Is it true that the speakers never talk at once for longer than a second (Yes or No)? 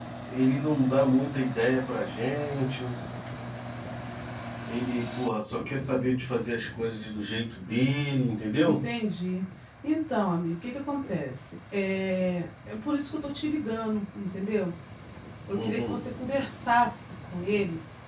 Yes